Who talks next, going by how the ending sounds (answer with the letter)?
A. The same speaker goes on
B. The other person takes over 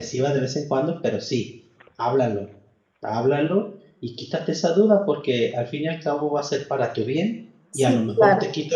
A